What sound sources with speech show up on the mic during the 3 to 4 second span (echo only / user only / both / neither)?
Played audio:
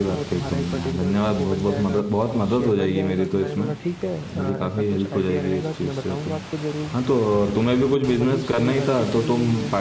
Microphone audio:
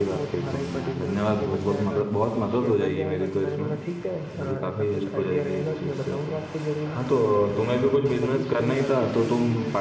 echo only